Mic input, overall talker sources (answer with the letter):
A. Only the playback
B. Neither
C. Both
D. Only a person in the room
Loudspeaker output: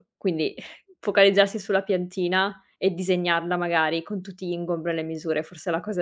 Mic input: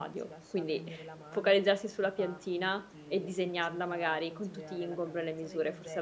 C